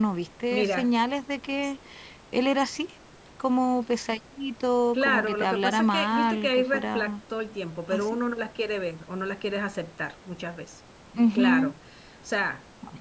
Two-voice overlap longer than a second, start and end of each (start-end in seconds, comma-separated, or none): 4.9-7.1